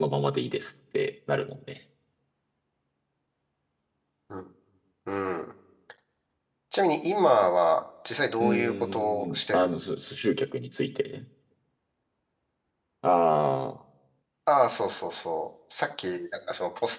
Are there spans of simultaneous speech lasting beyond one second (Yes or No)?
Yes